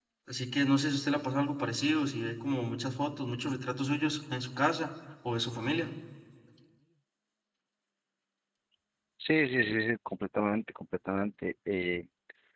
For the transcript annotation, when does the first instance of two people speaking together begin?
none

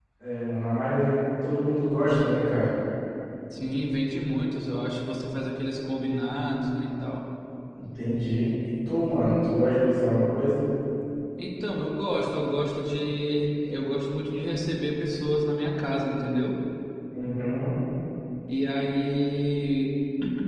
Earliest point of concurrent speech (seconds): none

